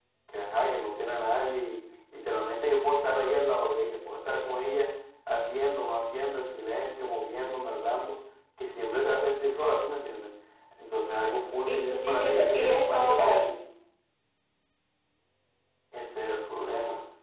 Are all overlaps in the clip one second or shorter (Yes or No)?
No